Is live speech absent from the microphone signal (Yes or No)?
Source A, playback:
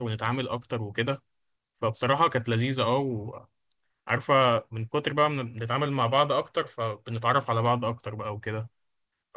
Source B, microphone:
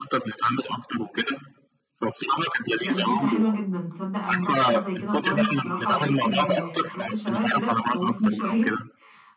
No